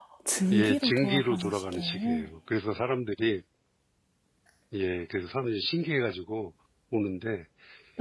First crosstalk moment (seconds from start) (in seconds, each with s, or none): 0.5 s